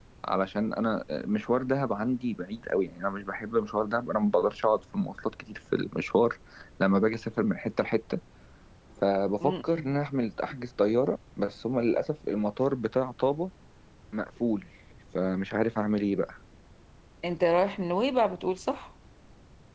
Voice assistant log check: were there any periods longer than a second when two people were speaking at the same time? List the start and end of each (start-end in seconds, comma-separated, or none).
none